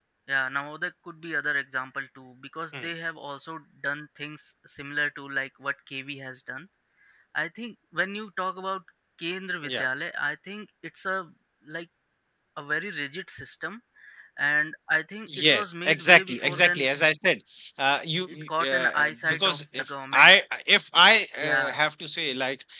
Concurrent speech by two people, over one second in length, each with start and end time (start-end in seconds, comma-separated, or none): 15.4-16.9, 18.3-20.3